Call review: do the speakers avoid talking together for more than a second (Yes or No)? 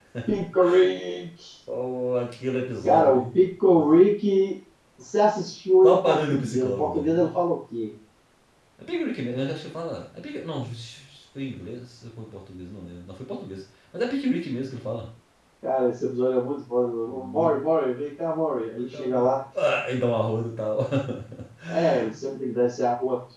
No